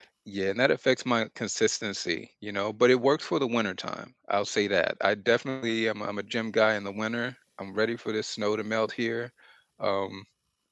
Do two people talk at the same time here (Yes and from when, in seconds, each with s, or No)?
No